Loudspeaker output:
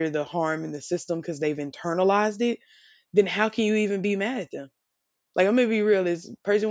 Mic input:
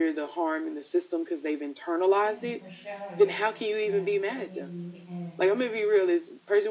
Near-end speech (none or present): present